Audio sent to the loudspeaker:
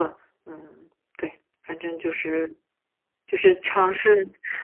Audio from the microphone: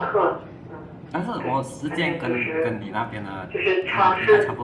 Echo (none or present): present